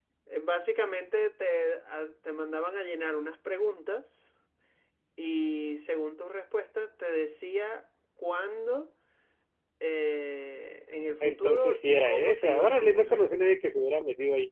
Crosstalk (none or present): present